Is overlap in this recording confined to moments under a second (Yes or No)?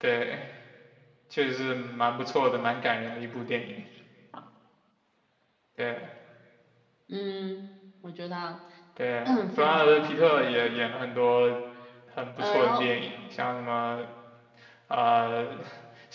No